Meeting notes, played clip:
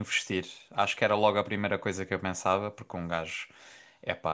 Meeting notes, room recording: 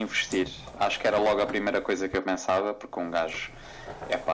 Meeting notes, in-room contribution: none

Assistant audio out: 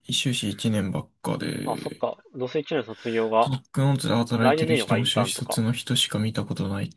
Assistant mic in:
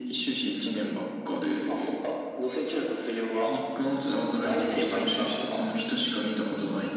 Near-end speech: none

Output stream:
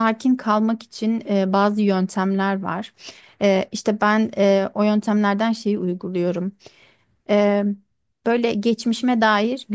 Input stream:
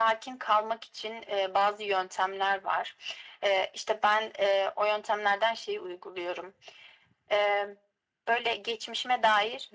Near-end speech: none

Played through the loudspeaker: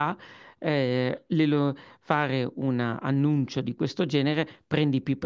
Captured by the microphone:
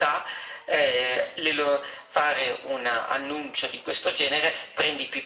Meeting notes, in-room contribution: none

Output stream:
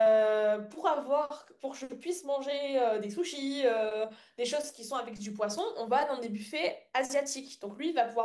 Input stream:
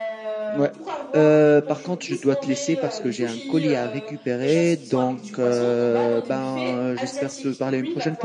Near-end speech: present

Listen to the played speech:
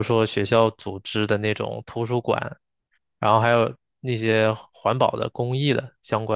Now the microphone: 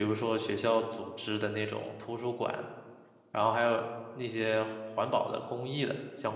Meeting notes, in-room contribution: none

